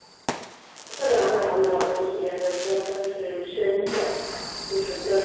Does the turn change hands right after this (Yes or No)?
No